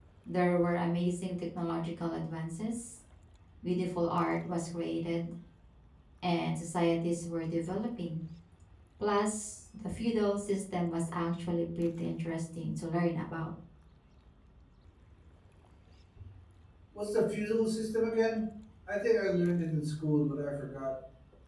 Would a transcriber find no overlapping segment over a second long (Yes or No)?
Yes